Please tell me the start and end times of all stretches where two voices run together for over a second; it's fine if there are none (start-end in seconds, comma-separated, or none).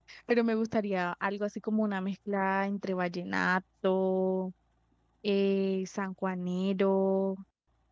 none